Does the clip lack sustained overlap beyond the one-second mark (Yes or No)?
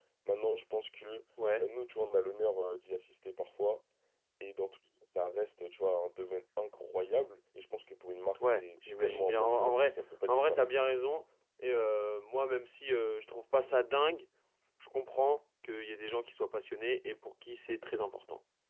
No